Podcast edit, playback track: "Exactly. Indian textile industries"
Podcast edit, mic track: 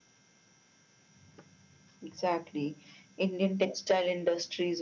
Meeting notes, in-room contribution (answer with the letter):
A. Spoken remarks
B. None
B